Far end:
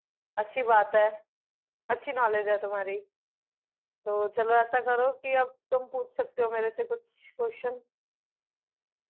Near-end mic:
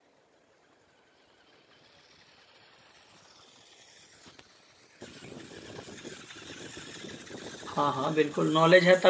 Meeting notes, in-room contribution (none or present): present